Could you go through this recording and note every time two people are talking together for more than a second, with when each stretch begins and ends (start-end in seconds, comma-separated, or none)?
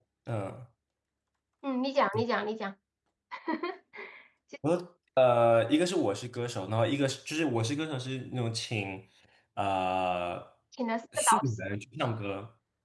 none